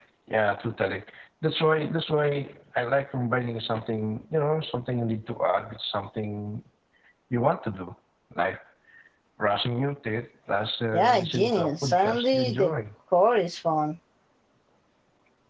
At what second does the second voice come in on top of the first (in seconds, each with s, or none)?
10.9 s